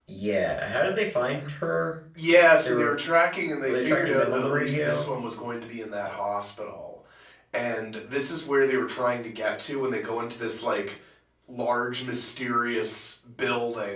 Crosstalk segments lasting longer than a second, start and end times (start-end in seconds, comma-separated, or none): 3.6-5.1